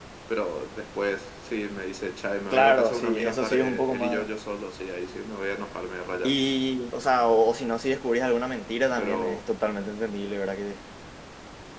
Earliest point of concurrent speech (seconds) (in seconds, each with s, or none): 2.5 s